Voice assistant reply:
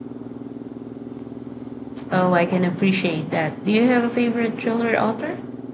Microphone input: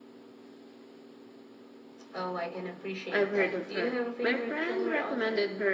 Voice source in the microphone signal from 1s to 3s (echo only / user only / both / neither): echo only